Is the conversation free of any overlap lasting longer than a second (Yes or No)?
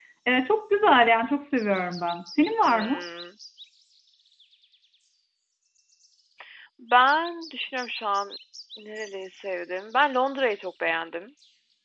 Yes